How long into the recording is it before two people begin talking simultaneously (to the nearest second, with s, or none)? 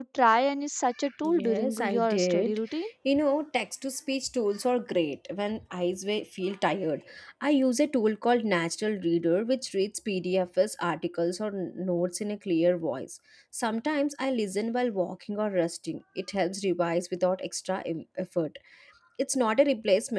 1 s